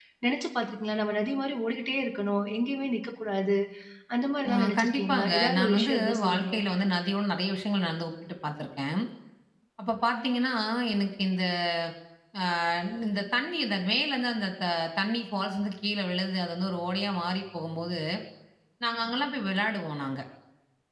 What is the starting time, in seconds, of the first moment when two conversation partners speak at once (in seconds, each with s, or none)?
4.5 s